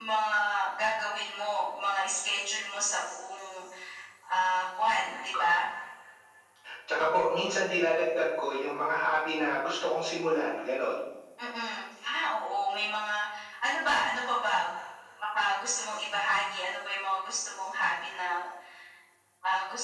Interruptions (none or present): none